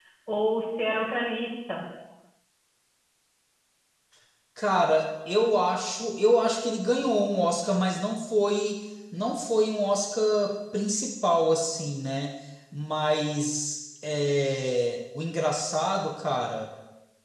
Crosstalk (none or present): none